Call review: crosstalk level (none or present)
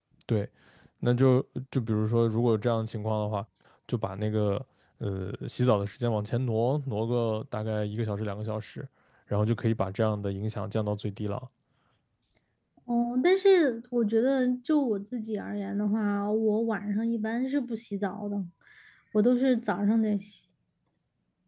none